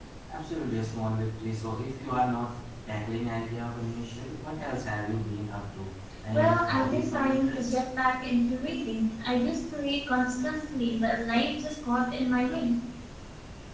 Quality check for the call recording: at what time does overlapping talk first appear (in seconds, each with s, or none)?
6.3 s